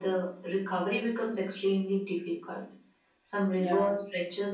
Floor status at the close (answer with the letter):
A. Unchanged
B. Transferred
A